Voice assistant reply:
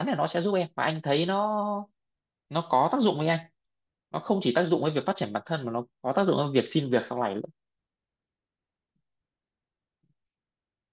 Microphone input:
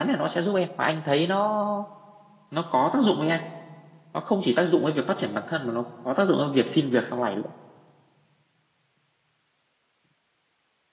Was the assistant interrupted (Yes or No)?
No